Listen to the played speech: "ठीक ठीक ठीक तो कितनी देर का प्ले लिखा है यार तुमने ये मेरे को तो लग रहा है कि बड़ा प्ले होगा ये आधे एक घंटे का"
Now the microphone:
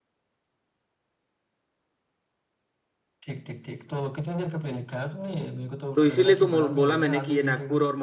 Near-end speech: present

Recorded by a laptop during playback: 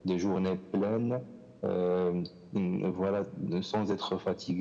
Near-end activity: none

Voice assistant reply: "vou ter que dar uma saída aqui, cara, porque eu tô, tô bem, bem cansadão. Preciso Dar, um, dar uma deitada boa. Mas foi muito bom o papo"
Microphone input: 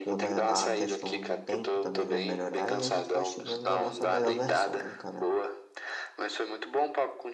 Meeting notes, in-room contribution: present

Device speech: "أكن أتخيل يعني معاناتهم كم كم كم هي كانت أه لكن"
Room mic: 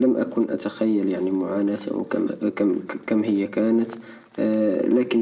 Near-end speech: none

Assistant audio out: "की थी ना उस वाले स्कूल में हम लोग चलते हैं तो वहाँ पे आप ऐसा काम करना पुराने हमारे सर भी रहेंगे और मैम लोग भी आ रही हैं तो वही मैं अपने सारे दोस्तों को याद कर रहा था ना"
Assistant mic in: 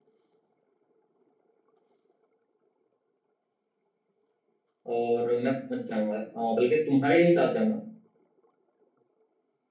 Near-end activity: present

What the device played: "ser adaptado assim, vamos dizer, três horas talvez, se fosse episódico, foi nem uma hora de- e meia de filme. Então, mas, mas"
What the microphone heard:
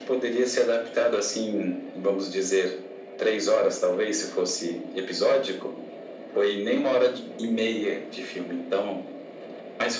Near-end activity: none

